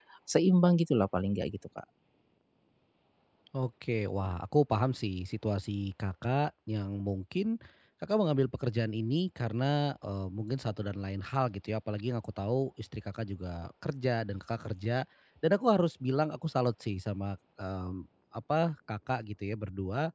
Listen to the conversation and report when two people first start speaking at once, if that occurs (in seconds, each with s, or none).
none